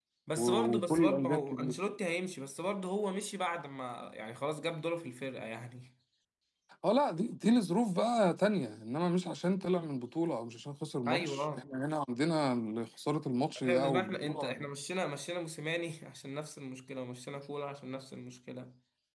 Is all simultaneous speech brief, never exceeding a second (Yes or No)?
No